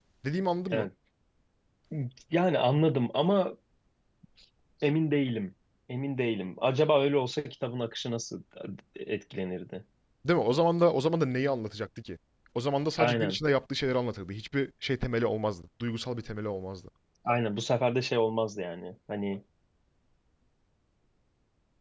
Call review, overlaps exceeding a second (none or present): none